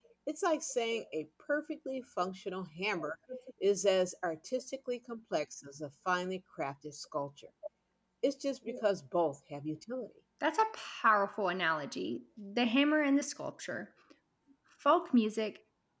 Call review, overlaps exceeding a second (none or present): none